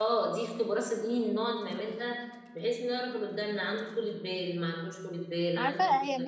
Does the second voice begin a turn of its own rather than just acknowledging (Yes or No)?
Yes